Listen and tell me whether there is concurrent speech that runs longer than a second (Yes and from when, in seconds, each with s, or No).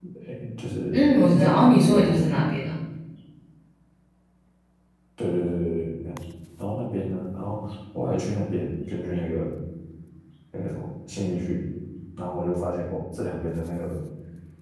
Yes, from 0.9 s